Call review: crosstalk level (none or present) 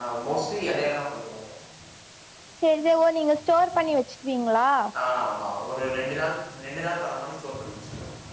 none